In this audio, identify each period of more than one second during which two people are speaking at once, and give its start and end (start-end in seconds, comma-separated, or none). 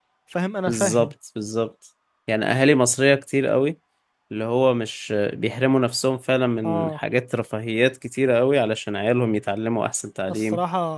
none